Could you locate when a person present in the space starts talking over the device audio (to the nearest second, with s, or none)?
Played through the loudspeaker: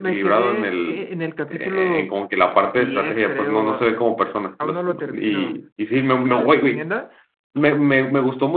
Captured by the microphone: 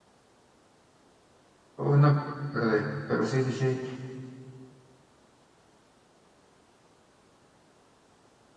2 s